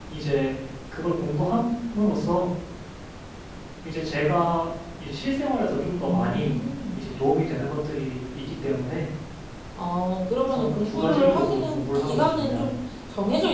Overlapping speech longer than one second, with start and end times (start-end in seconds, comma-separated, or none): 10.4-12.6